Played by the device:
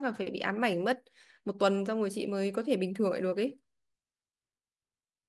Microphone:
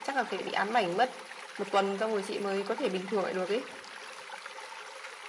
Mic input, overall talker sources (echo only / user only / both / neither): echo only